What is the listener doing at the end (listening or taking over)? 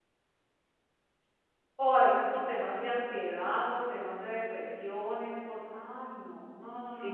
taking over